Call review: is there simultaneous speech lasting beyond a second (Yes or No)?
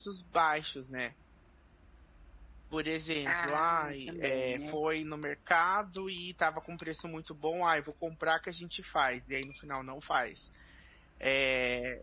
Yes